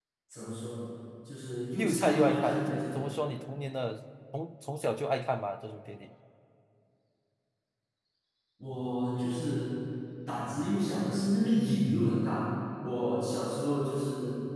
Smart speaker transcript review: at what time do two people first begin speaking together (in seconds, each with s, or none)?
1.8 s